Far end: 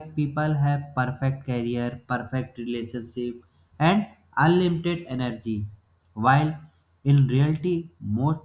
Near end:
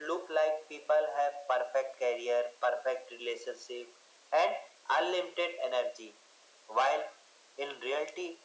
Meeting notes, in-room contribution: none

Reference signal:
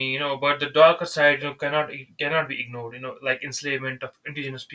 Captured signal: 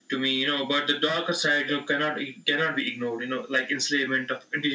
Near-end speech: none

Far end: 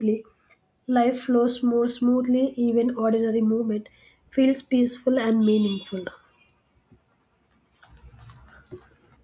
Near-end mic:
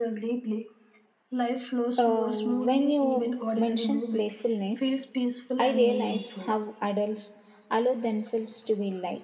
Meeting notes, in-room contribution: present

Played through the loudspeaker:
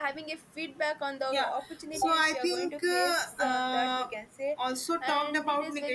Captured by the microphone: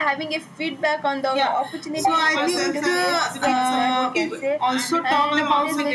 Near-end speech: present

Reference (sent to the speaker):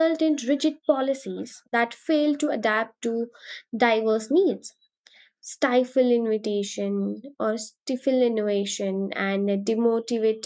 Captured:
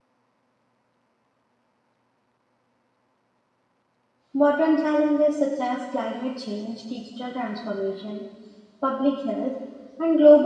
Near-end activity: present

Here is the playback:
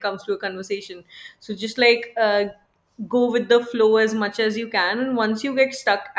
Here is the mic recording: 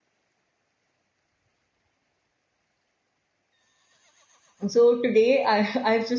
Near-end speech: present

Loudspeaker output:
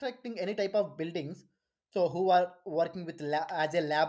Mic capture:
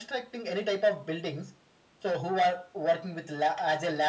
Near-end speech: none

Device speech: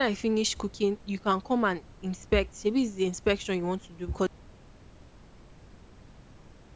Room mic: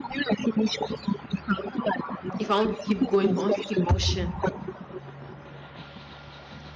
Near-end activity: present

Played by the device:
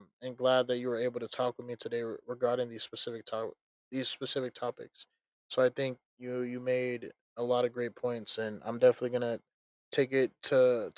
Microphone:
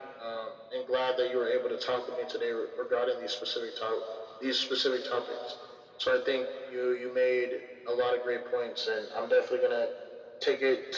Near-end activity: none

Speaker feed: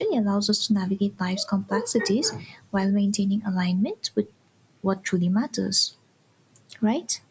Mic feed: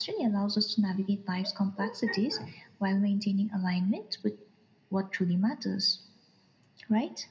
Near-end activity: none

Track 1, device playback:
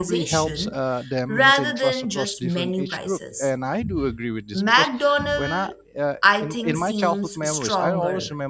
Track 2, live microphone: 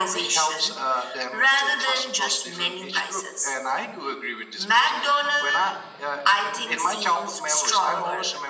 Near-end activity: none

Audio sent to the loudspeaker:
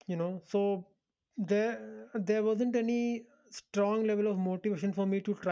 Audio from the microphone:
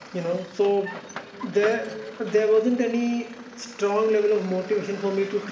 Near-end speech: none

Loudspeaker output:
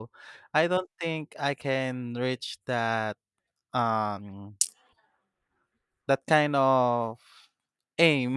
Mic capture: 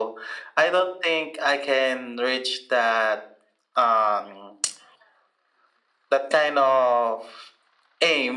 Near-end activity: none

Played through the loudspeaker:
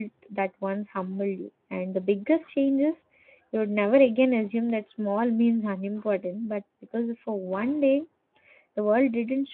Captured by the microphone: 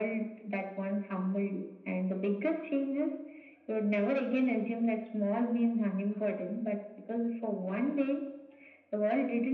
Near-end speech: none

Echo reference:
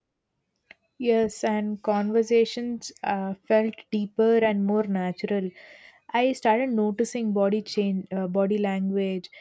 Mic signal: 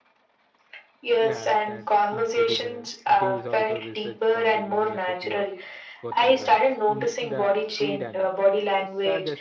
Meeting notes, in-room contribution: present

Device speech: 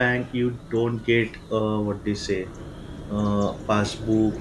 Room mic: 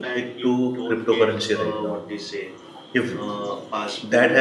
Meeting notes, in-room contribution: present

